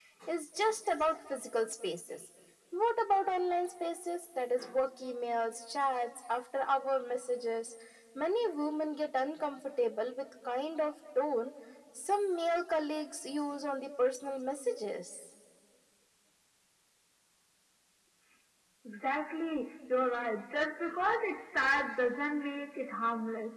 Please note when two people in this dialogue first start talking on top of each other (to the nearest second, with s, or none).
none